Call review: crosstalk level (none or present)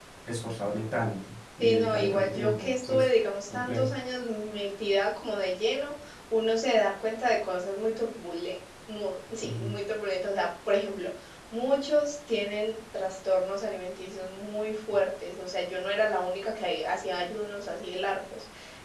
present